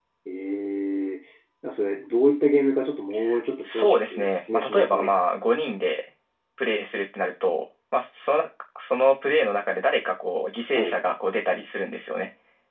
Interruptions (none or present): present